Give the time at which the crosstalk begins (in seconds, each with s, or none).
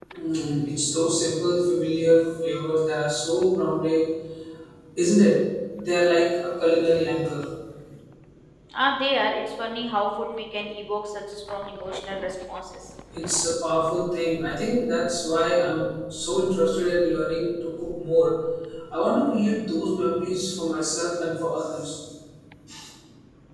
none